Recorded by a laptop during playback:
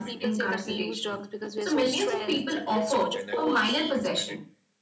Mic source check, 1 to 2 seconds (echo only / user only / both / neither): both